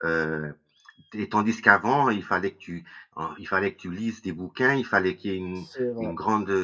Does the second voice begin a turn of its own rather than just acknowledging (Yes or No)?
No